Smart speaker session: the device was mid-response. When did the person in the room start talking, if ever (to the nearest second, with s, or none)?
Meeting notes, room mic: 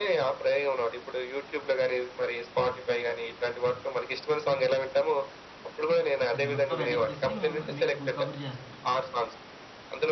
6 s